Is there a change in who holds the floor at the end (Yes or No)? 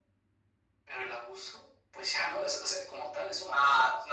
Yes